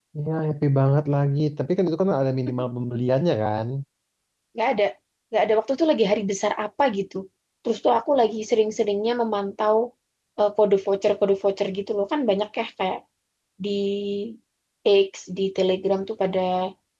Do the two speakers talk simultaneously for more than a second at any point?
No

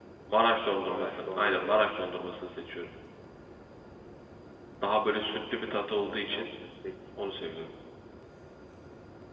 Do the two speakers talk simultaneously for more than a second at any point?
Yes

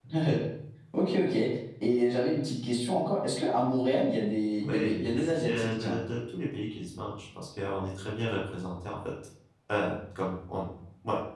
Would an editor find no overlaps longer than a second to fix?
No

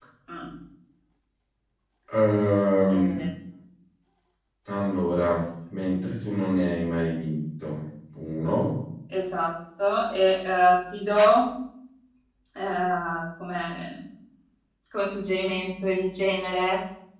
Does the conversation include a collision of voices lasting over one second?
No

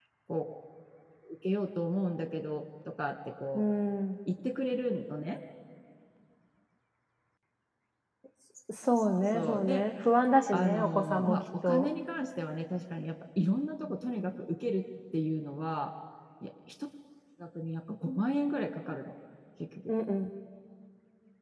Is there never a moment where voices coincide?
No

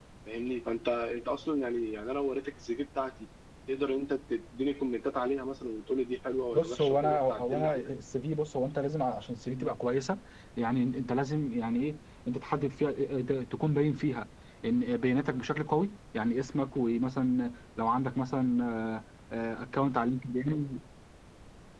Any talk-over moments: Yes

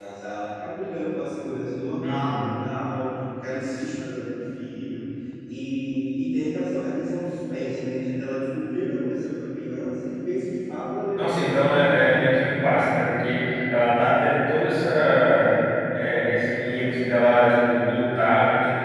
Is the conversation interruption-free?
No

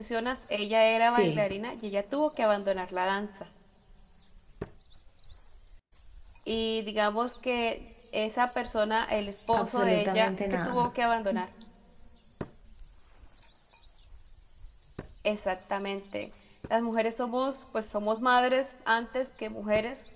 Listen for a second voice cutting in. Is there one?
Yes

